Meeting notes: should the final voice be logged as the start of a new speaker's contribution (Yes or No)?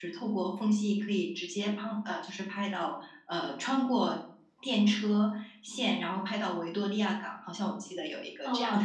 Yes